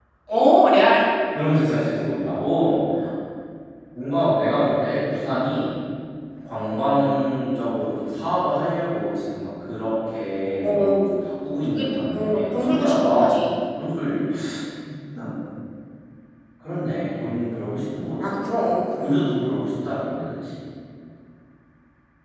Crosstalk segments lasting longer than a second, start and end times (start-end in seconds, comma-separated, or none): 11.7-13.3